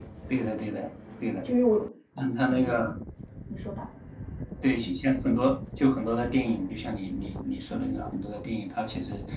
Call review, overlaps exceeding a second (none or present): none